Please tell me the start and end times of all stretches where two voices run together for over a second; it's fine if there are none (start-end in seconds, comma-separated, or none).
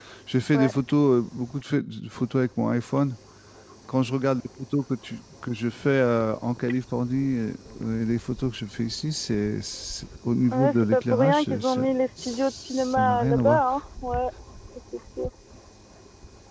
10.5-11.9, 12.2-13.6